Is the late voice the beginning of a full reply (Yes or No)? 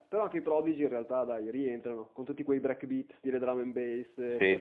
Yes